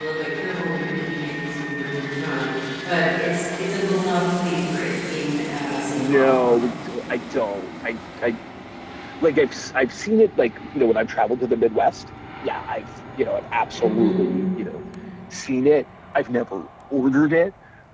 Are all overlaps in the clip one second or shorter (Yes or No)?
Yes